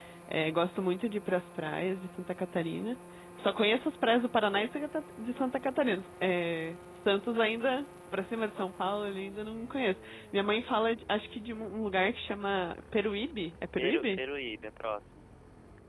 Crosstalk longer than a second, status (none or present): none